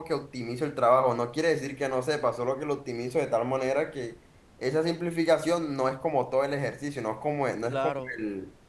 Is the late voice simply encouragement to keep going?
No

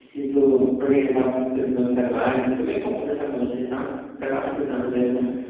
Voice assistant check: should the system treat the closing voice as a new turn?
No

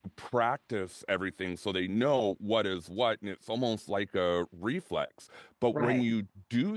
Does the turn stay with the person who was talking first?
Yes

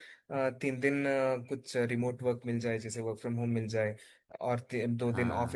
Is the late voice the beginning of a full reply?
No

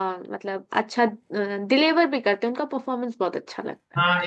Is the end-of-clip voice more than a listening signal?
Yes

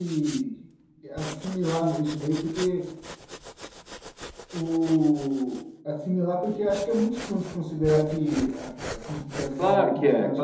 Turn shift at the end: Yes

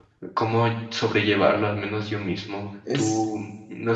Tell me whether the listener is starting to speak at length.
No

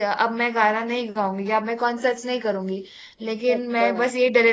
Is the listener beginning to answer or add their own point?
No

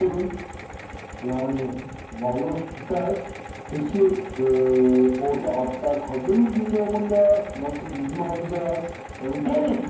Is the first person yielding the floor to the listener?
Yes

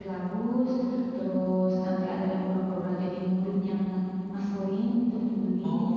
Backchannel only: No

